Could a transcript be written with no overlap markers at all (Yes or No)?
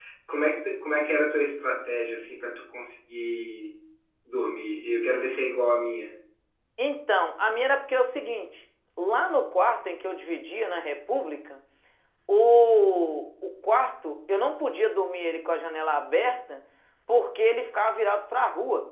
Yes